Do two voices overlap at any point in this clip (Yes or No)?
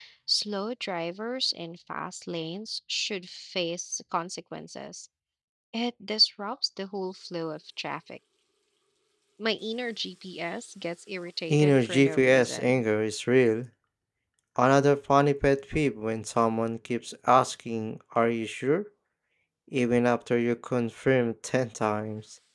Yes